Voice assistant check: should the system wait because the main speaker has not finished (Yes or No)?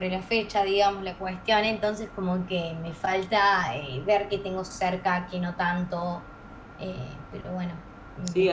No